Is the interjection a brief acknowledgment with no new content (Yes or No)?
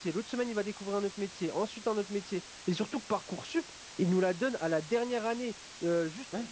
Yes